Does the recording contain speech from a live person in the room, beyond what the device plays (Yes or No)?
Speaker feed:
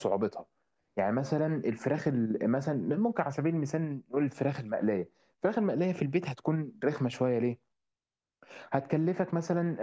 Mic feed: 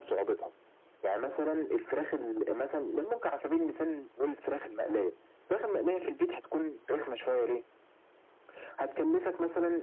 No